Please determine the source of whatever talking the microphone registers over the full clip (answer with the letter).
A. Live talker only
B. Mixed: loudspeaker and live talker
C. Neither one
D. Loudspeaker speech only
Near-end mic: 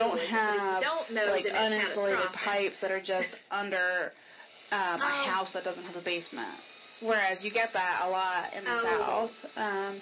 D